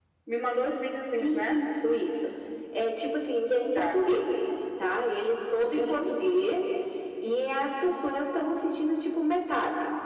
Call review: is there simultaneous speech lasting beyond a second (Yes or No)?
No